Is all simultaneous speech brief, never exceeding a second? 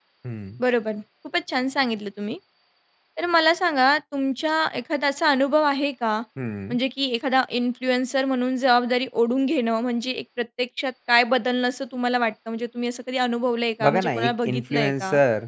No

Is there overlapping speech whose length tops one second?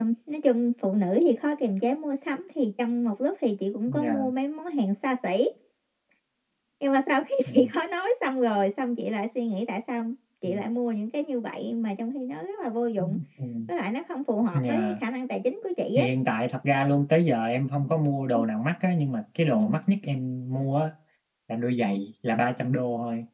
No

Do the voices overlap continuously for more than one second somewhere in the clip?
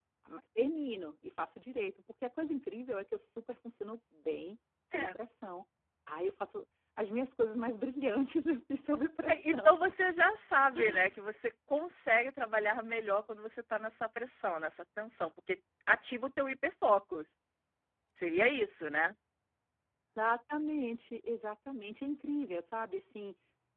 No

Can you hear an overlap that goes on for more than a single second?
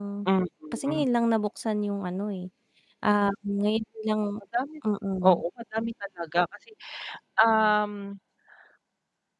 No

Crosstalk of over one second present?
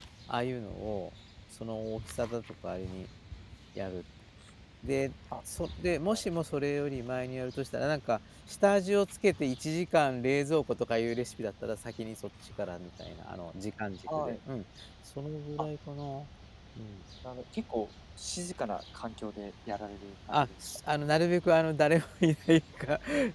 No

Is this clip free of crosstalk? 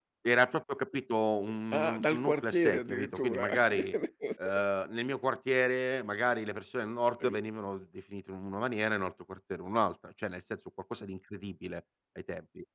No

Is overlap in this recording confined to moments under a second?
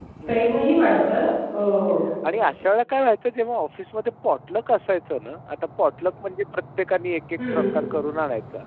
Yes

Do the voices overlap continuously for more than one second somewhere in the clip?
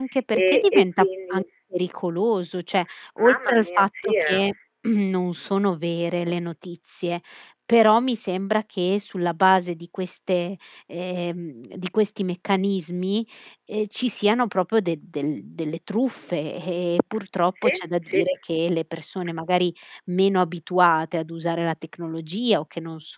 Yes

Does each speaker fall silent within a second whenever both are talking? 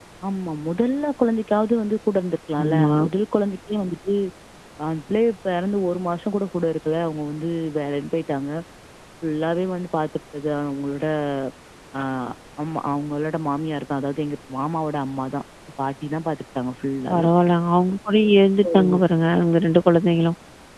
Yes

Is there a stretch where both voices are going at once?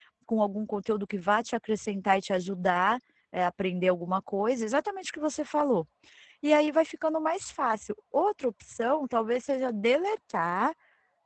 No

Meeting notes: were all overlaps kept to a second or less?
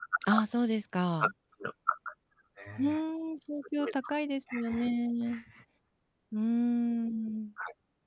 Yes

